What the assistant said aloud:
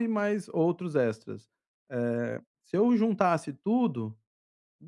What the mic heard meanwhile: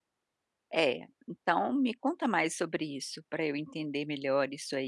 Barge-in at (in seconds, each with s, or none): 0.7 s